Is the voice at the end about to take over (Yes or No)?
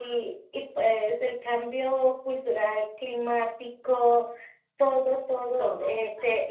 No